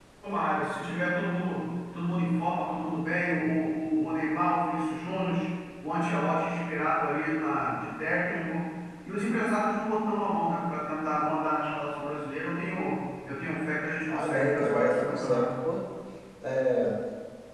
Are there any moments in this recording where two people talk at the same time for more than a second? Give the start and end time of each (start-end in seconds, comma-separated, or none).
14.1-15.5